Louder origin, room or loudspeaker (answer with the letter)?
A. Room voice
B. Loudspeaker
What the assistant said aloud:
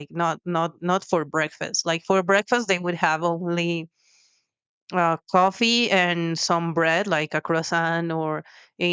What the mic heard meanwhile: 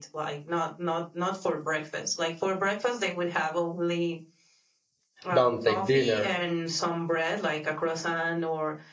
A